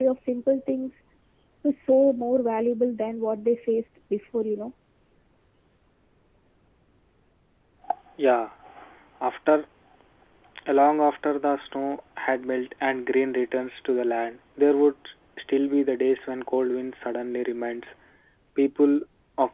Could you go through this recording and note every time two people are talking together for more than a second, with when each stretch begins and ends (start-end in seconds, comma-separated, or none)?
none